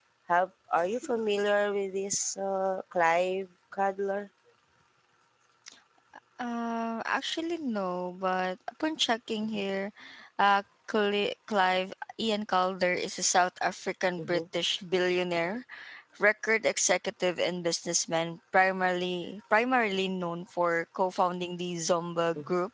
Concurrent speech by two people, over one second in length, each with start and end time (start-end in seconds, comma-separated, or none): none